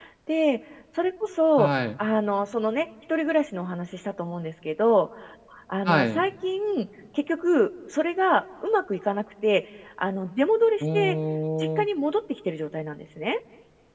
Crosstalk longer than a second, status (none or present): none